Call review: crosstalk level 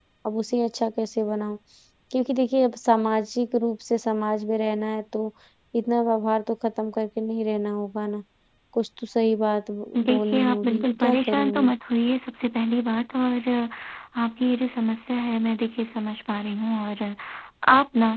present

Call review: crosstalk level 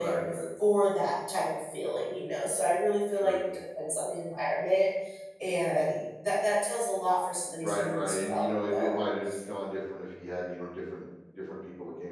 present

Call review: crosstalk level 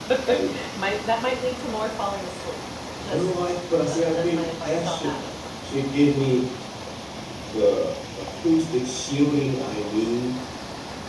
present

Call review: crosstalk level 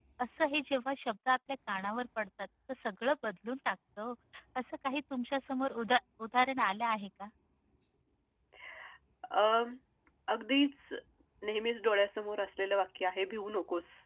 none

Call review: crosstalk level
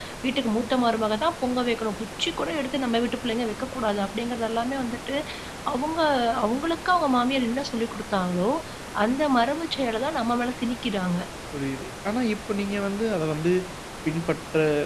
none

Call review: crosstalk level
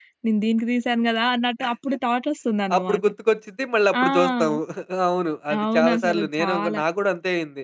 present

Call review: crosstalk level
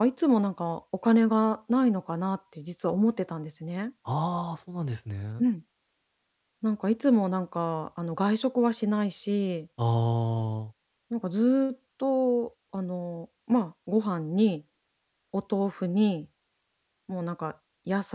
none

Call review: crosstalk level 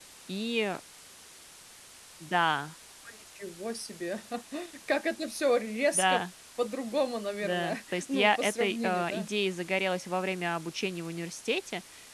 present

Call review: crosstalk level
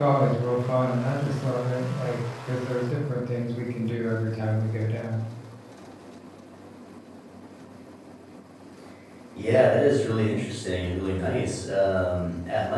none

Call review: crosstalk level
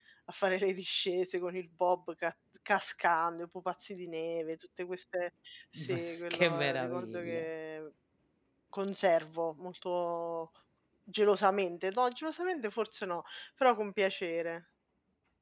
present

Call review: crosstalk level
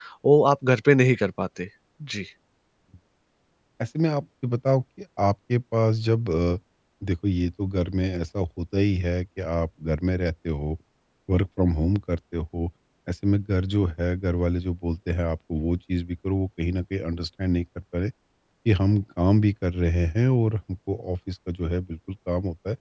none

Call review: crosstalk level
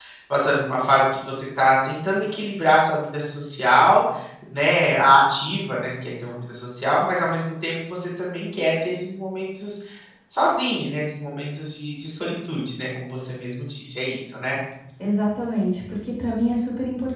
none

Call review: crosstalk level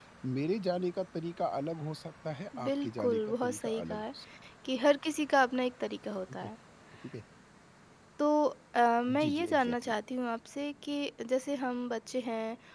present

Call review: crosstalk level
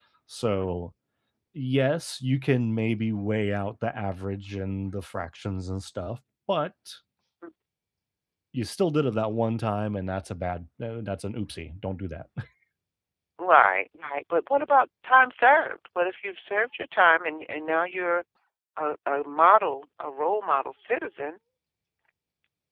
none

